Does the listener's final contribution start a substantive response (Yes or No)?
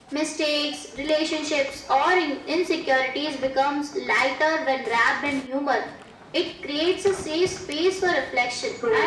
No